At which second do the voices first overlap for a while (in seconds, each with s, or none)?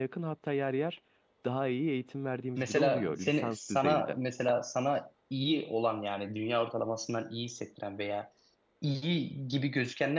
2.6 s